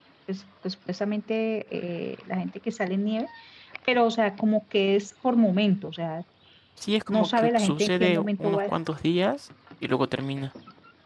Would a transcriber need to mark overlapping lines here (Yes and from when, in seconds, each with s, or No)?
Yes, from 7.1 s